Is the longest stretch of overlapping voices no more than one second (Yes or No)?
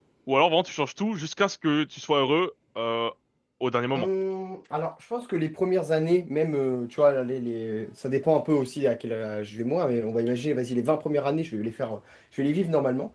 Yes